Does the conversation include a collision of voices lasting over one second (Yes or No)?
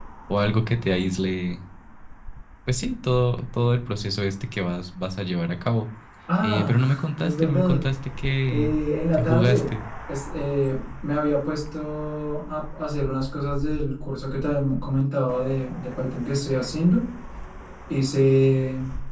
Yes